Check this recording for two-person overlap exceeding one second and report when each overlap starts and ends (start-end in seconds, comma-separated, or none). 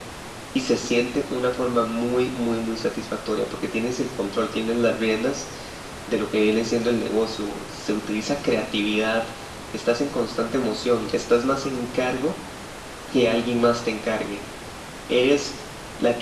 none